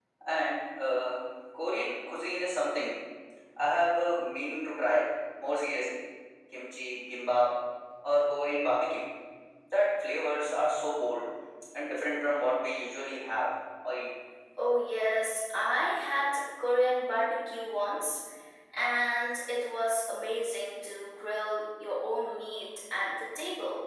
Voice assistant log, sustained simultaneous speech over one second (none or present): none